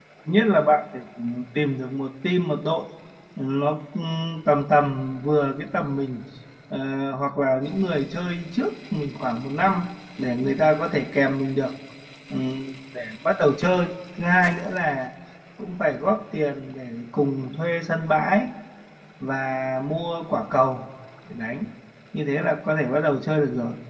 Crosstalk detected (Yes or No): No